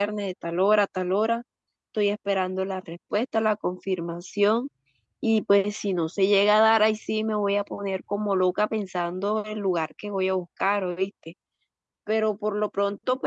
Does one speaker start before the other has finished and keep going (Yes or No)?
No